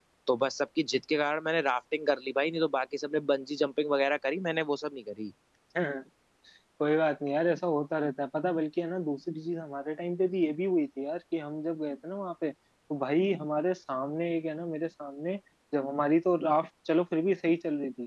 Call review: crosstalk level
none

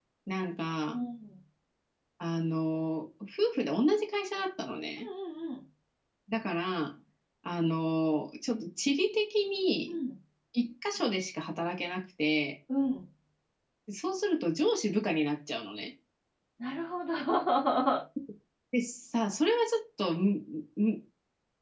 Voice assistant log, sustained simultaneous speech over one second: none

